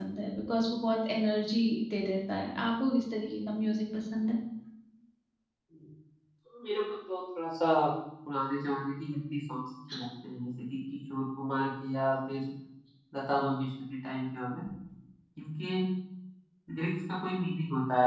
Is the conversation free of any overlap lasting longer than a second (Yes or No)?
Yes